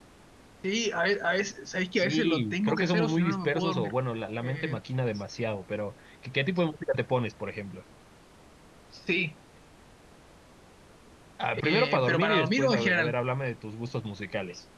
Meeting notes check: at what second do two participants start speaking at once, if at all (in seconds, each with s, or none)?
2.0 s